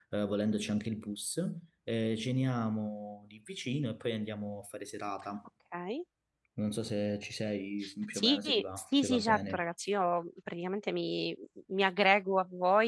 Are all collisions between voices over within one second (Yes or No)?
No